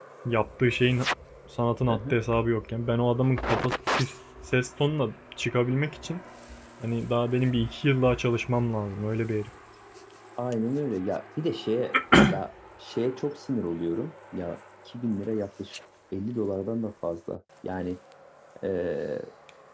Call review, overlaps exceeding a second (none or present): none